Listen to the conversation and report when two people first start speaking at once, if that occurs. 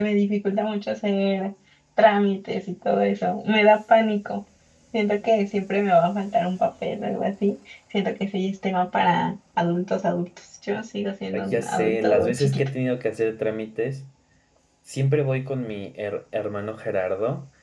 11 s

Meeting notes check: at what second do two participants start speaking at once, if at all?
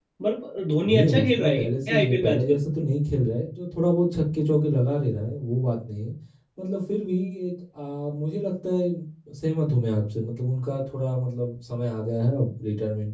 1 s

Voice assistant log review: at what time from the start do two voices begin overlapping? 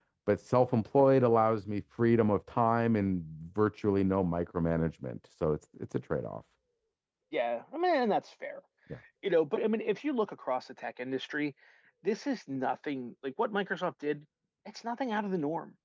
none

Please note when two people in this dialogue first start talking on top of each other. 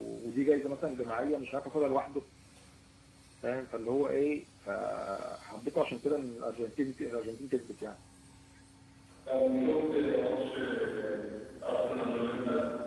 none

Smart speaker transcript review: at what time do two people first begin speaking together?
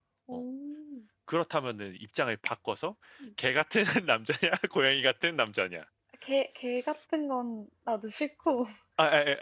none

